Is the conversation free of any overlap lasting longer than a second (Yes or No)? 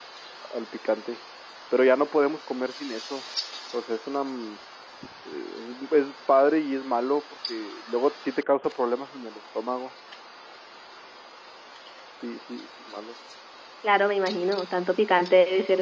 Yes